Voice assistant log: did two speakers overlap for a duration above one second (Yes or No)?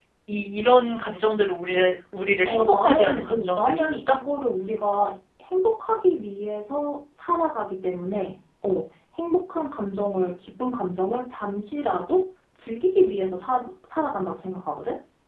Yes